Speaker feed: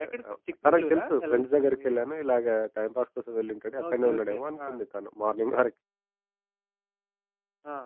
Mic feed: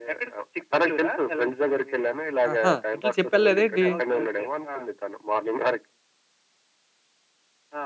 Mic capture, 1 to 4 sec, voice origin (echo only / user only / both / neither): both